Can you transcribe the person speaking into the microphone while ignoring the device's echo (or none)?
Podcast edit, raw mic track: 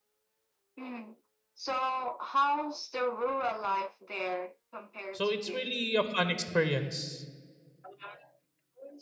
So it's really a fun experience.